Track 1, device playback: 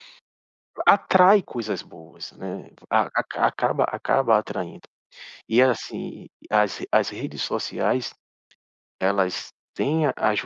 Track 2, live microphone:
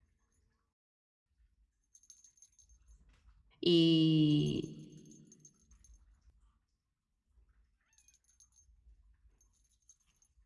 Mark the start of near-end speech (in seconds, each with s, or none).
3.6 s